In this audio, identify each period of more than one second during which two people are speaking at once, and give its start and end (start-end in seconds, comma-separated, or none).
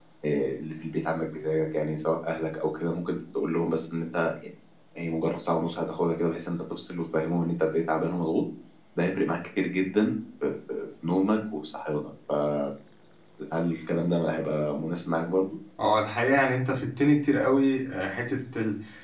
none